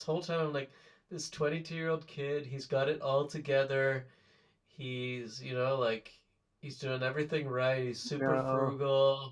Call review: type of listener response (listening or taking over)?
listening